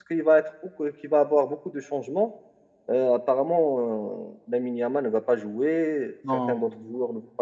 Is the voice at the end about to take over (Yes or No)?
No